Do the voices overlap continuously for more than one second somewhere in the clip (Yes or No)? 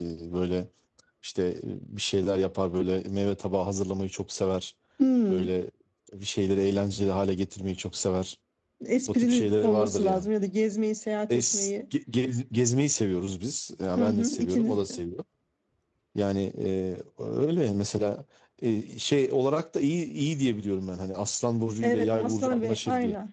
Yes